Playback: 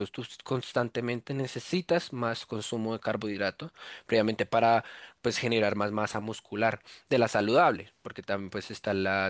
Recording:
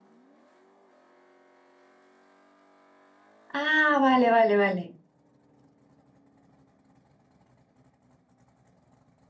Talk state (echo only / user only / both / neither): user only